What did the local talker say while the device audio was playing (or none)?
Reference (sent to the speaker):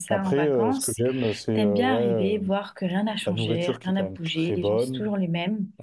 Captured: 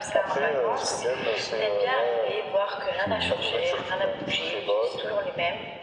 C'est vrai.